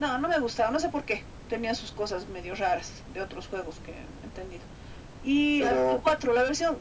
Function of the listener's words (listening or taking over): listening